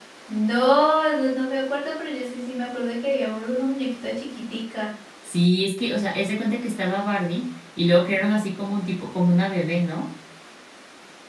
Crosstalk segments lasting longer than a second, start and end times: none

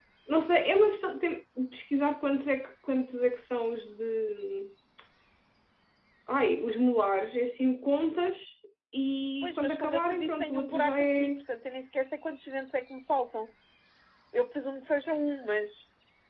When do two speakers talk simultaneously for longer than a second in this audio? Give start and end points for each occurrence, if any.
9.4-11.3

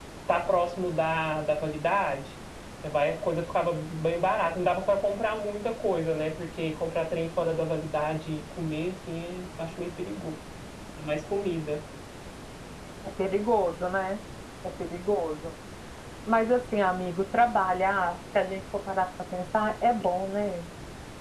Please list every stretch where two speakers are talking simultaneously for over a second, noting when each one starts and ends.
none

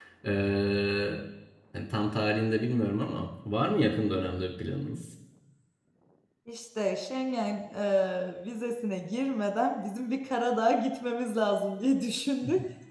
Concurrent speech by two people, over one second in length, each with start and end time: none

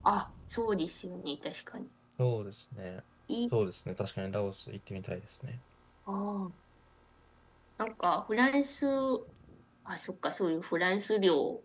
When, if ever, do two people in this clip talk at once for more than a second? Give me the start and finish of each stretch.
none

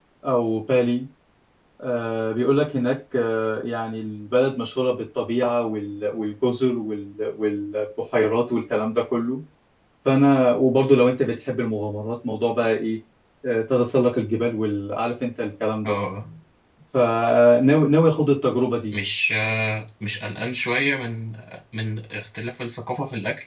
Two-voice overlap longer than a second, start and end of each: none

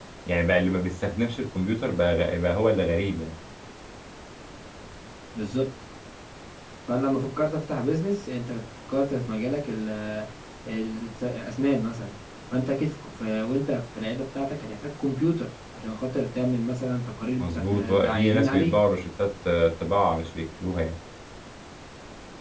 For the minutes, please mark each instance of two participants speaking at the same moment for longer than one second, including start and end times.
17.4-18.7

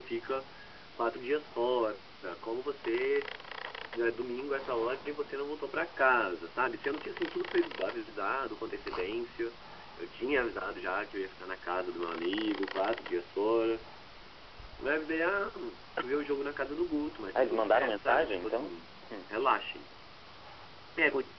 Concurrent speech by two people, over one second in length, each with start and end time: 17.4-18.7

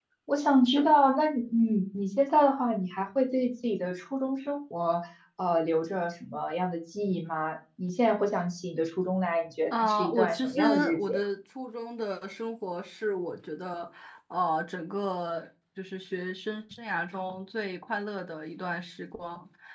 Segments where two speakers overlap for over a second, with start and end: 9.7-11.2

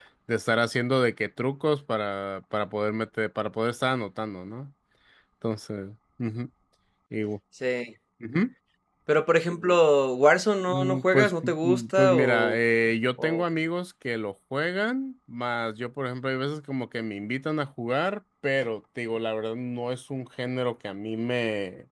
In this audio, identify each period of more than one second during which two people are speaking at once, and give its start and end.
10.7-12.6

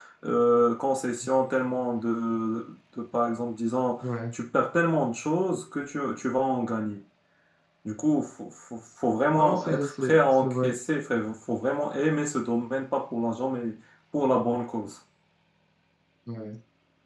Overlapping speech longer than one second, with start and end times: 9.3-10.7

